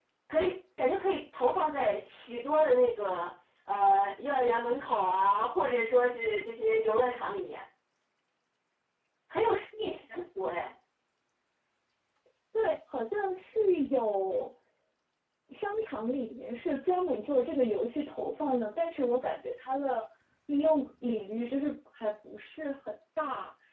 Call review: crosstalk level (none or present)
none